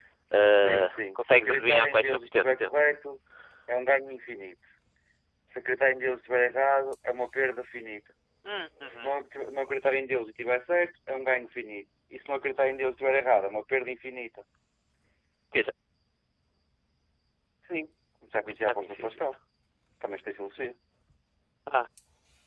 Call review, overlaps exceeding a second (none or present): present